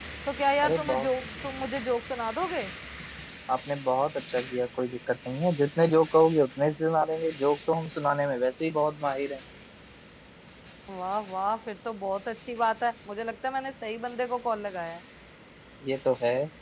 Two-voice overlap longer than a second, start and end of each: none

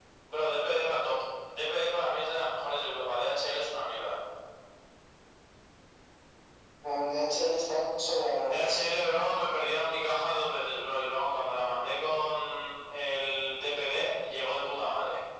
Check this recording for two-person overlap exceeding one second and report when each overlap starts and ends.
none

